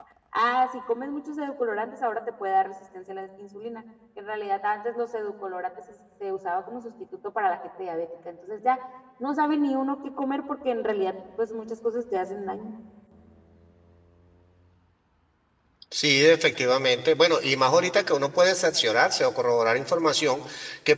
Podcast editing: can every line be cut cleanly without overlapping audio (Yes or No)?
Yes